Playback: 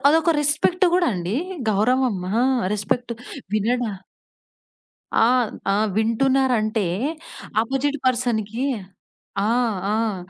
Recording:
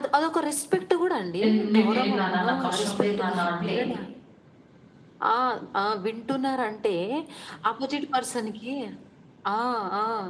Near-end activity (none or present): present